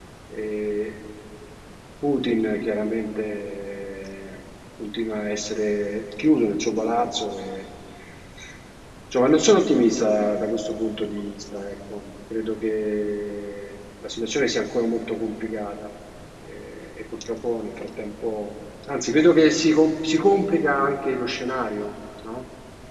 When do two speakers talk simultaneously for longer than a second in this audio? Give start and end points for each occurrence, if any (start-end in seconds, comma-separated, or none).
none